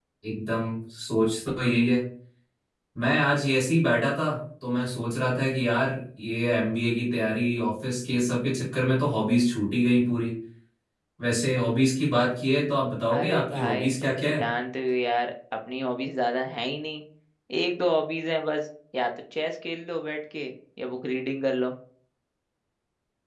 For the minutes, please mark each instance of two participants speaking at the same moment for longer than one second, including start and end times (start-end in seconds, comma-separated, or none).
13.1-14.4